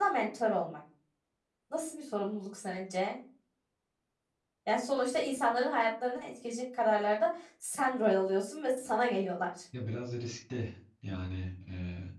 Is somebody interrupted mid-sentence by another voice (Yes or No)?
No